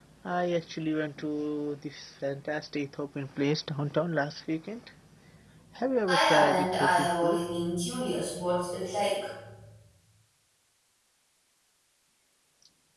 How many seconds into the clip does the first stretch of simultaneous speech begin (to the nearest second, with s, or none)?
6 s